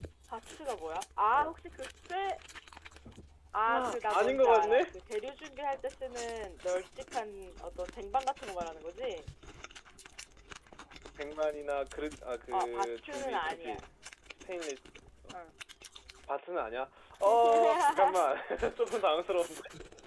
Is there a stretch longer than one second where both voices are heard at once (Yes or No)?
Yes